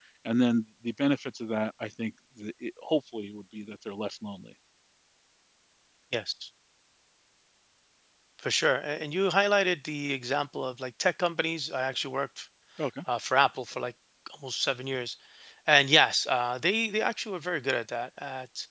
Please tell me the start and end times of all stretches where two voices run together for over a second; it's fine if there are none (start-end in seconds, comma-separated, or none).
none